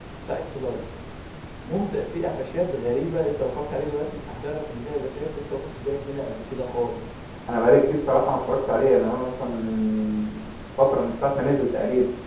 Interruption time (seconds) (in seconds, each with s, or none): none